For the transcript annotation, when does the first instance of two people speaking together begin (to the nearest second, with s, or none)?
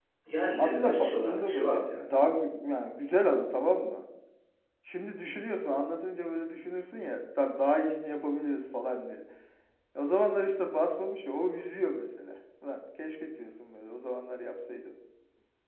1 s